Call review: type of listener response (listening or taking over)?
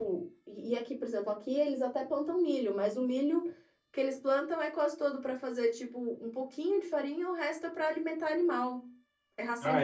taking over